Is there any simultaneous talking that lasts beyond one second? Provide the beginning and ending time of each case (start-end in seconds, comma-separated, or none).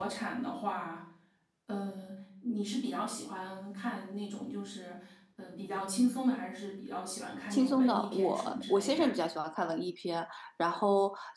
7.5-9.1